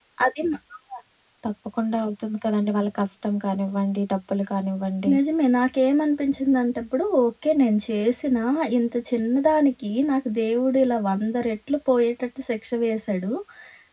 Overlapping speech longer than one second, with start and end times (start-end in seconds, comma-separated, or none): none